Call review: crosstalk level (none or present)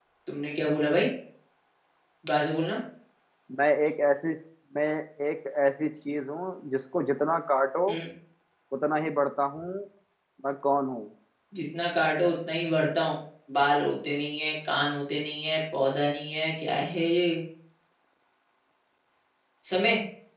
none